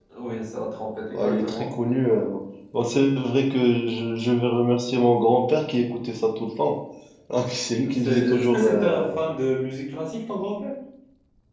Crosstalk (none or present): present